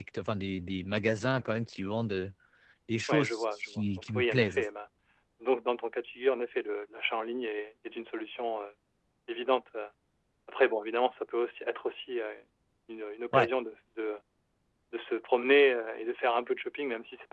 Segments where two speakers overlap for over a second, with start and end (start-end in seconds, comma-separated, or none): 3.1-4.6